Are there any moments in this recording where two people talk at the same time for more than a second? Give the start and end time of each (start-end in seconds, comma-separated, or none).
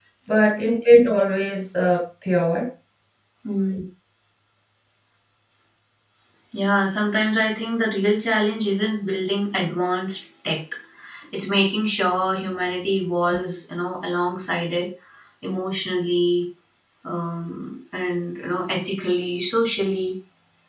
none